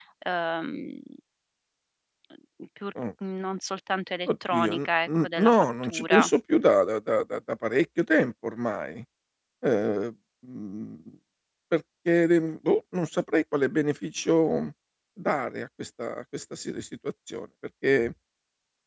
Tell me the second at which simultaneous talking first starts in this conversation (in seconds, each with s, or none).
4.3 s